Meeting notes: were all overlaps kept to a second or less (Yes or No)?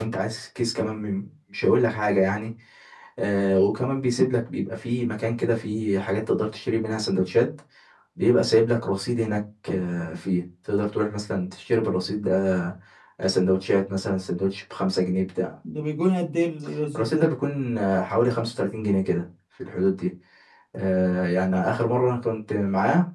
Yes